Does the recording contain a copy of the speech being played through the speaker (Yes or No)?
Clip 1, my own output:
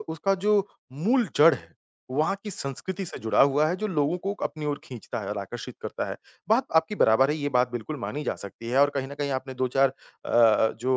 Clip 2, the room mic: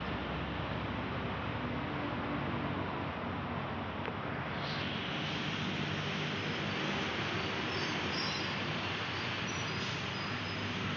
No